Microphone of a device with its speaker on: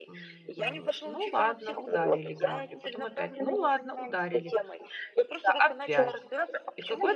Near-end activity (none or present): present